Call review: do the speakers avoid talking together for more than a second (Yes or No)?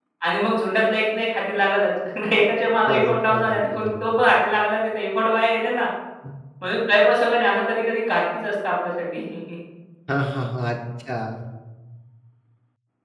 No